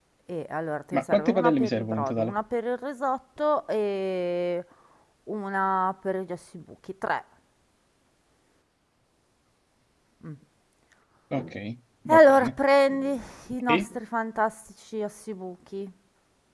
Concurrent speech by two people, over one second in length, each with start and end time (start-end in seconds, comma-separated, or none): 0.9-2.3